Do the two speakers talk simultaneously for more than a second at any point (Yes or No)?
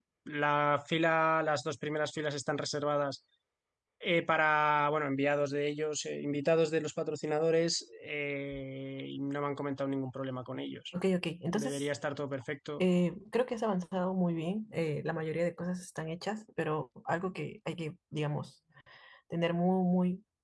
No